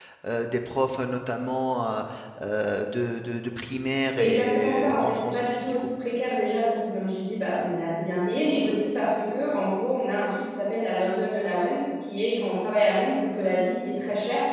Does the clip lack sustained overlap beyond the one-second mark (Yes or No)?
No